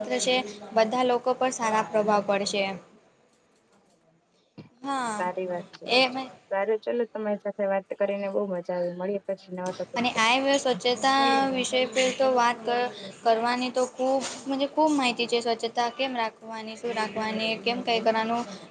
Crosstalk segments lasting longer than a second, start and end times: none

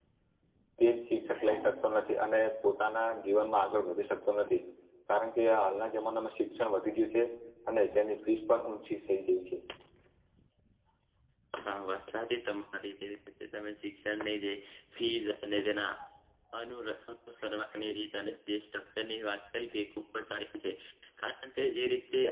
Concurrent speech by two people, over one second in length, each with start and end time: none

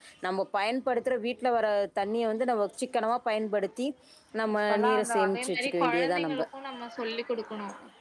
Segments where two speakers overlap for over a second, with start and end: 4.6-6.4

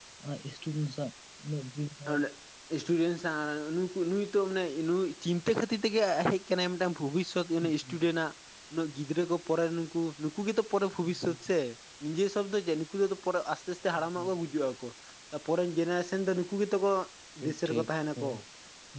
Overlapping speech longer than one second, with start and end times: none

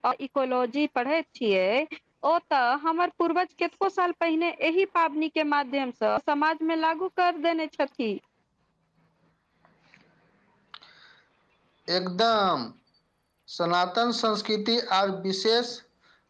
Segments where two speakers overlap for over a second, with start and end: none

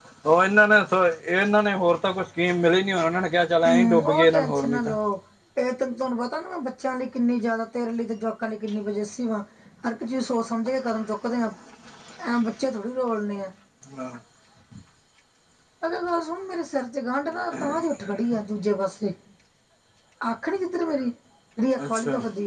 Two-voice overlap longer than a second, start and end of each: 3.6-4.9

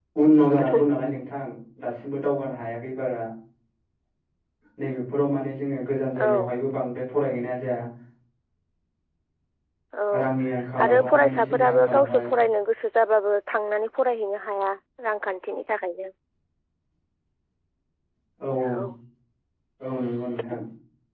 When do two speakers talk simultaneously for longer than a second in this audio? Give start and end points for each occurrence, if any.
10.8-12.3

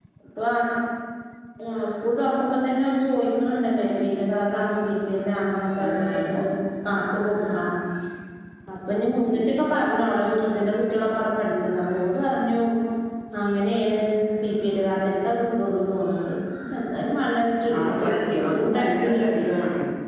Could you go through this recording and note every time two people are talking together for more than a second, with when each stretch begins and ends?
17.7-19.2

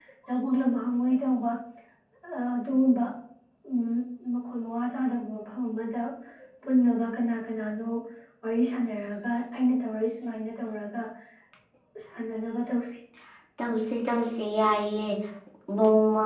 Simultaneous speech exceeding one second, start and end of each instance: none

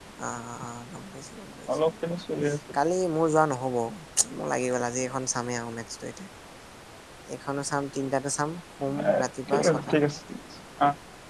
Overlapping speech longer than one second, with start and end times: none

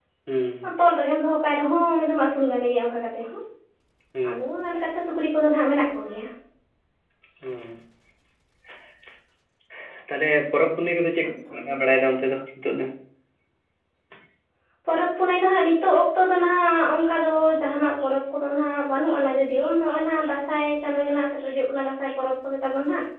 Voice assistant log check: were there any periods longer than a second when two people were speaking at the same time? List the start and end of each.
none

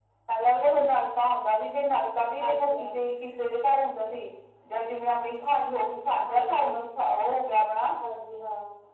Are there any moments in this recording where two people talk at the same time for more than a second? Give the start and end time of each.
none

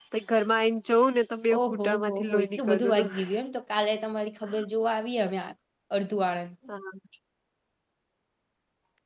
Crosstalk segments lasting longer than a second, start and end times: 1.6-3.1

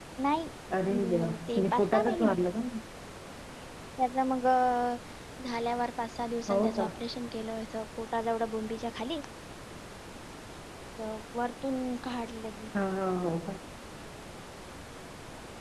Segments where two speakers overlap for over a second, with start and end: 0.9-2.4

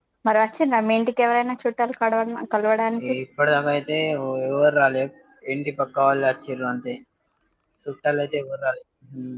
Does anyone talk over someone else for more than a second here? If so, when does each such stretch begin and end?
none

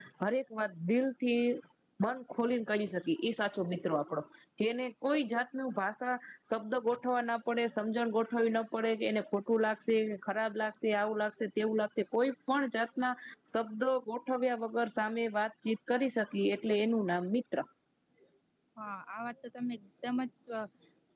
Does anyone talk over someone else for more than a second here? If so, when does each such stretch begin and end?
none

